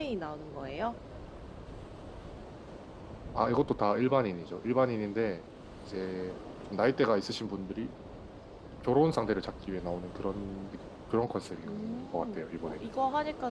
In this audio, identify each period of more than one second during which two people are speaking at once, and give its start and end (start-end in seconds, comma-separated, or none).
11.7-12.9